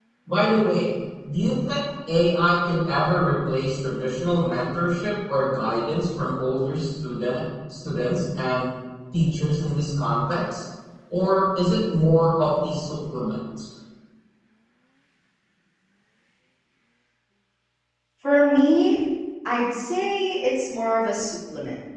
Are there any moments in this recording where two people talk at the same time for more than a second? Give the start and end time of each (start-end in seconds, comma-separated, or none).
none